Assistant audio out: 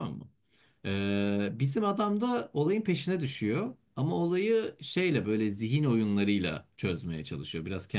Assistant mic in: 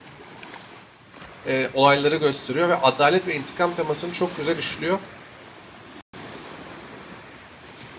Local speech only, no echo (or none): e, olayları gösteriyor ve adalet ve intikam temasını çok güzel işliyor.